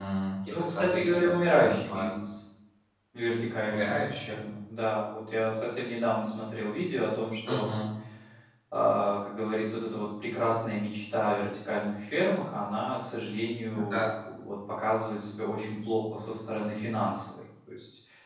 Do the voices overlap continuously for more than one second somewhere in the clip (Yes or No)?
Yes